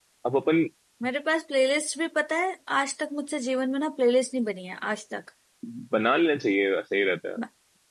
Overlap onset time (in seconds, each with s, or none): none